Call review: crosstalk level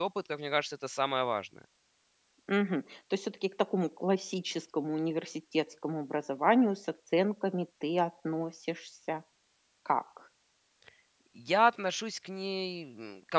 none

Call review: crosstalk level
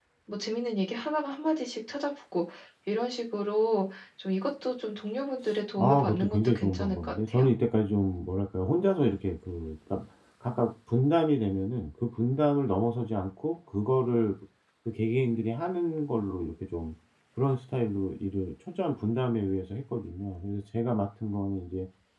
present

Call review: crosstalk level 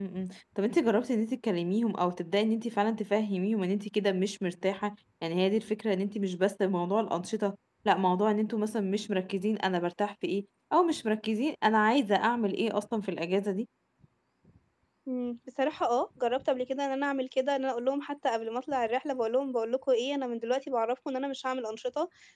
none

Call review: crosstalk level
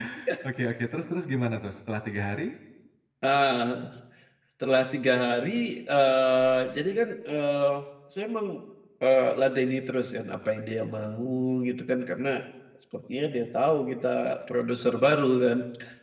none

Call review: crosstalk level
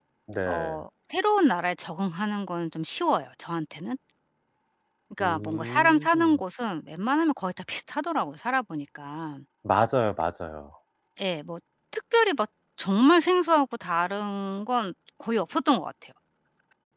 present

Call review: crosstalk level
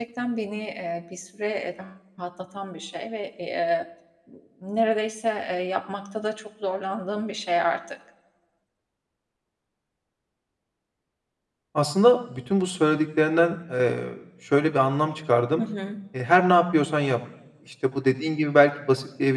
none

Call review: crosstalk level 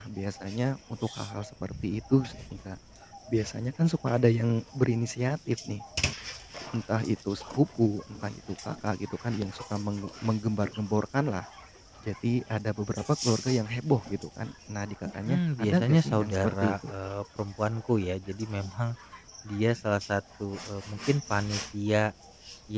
present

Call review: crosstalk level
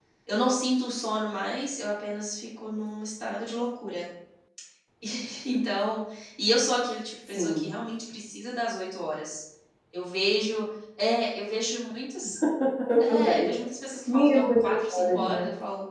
present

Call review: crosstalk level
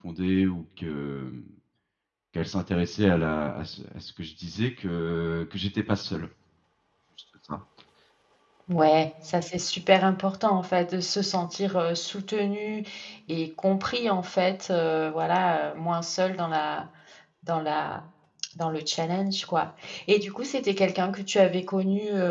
none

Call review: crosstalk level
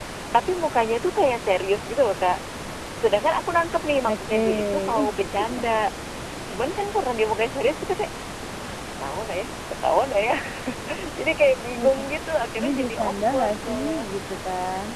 present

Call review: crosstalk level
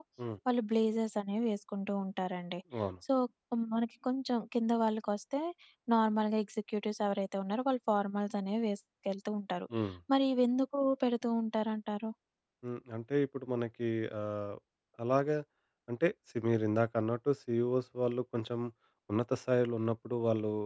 none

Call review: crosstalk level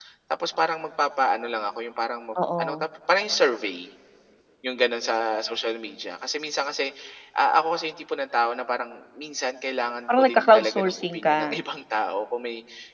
present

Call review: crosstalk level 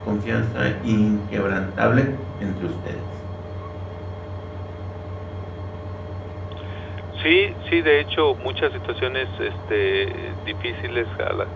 none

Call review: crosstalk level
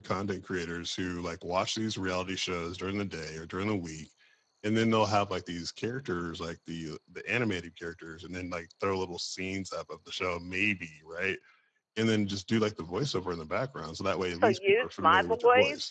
present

